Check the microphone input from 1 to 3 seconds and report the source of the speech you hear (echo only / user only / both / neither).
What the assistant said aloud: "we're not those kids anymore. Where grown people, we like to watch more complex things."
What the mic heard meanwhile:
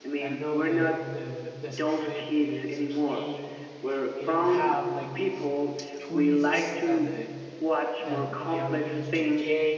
both